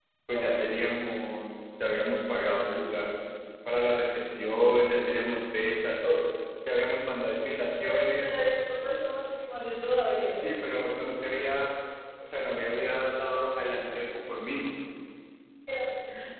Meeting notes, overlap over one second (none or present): none